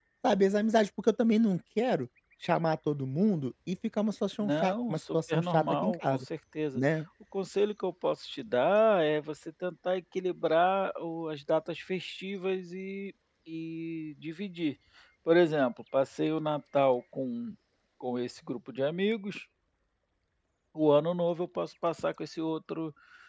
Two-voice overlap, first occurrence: 4 s

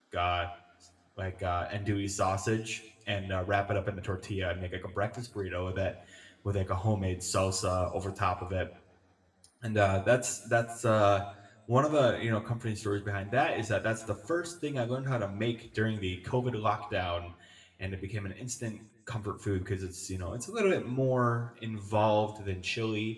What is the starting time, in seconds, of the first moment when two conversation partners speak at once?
none

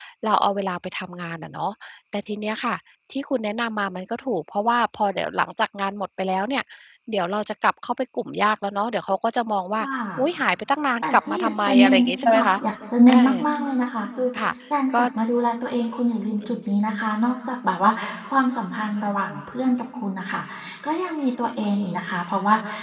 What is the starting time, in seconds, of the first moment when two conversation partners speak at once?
11 s

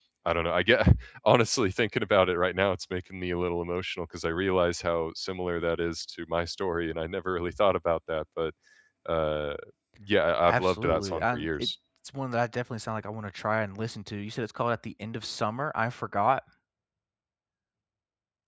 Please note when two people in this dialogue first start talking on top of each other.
10 s

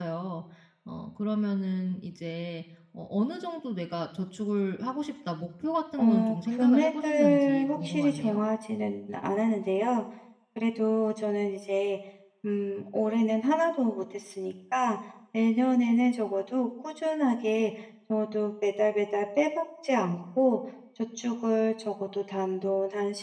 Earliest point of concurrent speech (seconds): 6 s

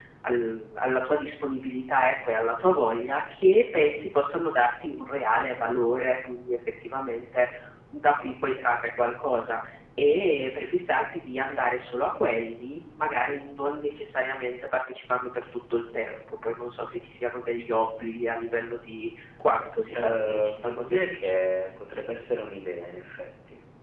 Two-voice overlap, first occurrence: 20 s

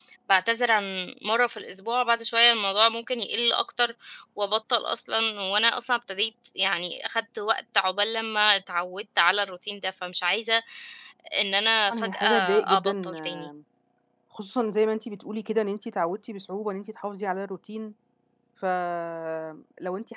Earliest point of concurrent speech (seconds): 12 s

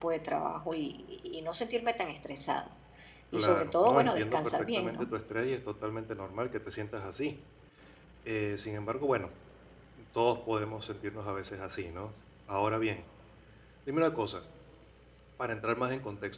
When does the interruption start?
3 s

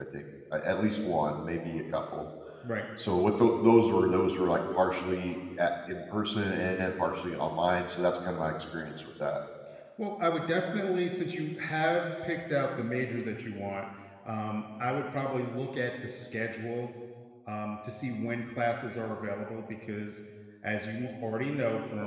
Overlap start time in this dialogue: none

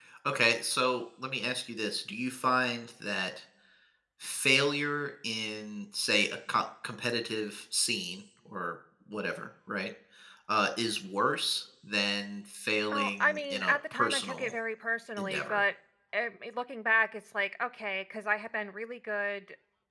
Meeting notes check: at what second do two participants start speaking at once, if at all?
13 s

